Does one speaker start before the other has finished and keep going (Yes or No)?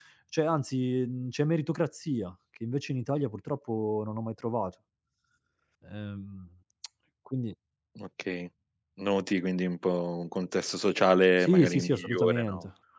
Yes